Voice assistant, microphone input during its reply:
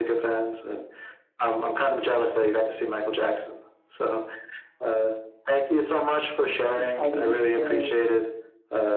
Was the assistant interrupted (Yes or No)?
Yes